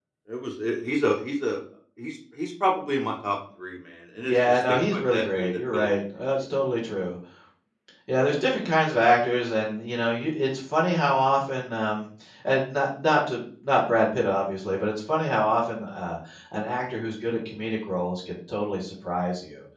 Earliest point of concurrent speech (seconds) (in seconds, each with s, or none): 4.2 s